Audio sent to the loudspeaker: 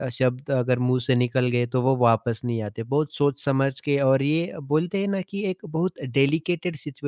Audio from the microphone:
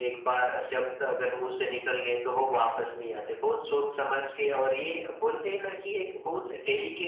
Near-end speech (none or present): none